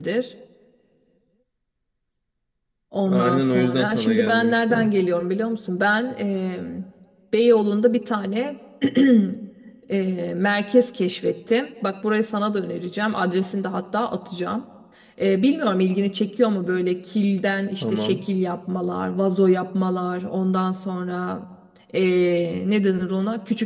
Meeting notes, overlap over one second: present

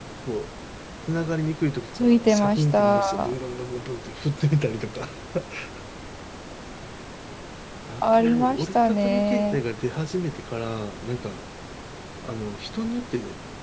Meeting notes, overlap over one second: present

